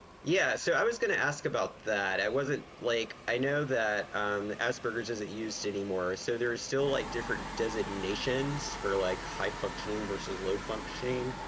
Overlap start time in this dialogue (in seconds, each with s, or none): none